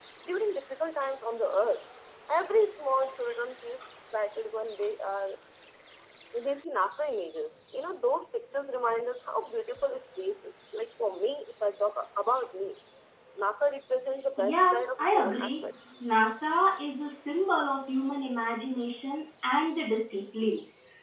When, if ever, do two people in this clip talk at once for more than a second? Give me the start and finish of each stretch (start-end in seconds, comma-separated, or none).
14.4-15.6